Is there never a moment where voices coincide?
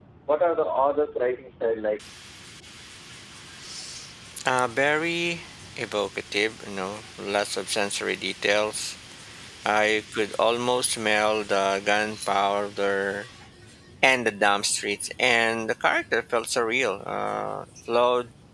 Yes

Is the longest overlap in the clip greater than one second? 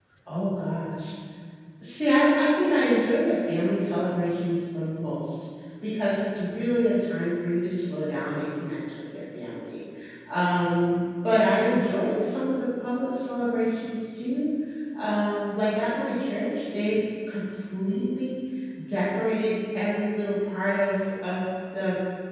No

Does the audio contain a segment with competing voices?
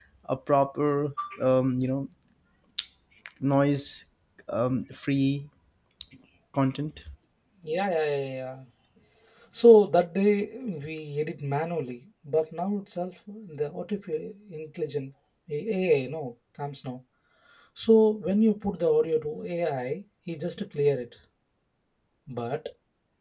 No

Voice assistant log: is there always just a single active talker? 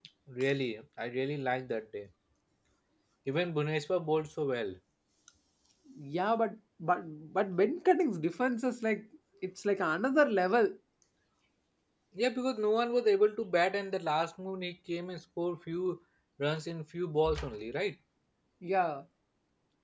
Yes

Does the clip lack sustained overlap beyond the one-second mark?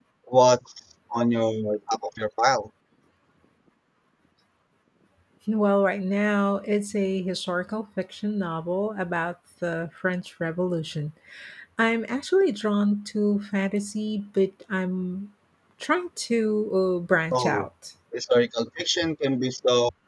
Yes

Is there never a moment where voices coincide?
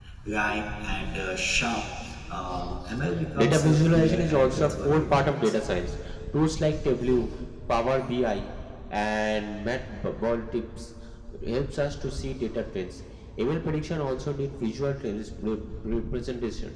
No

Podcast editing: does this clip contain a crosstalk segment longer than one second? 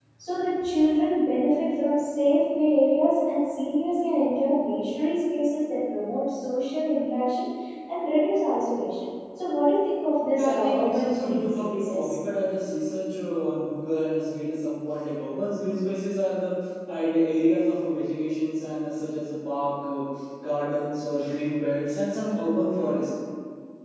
Yes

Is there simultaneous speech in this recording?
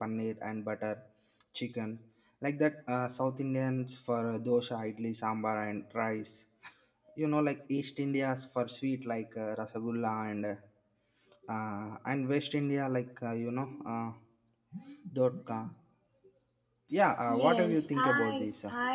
Yes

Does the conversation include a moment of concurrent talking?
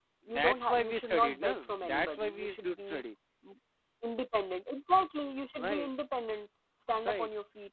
Yes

